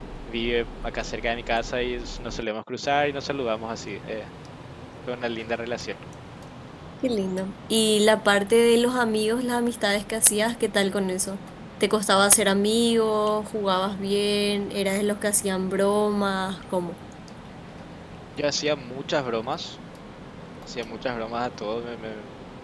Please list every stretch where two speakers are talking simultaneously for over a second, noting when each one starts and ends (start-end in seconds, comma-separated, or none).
none